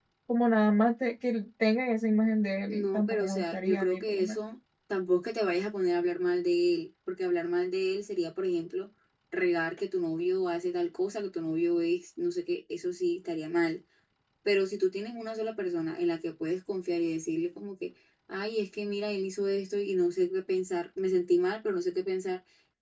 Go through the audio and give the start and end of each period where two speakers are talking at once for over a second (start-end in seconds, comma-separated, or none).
2.7-4.4